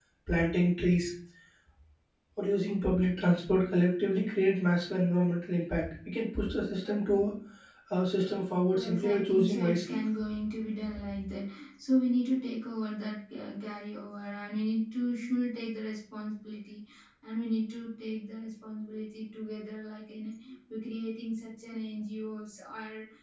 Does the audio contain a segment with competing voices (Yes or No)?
Yes